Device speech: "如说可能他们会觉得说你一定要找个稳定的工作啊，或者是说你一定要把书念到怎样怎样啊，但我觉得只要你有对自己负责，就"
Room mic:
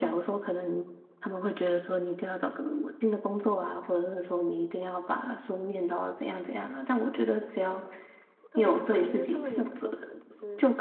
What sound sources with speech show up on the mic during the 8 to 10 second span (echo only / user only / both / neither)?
both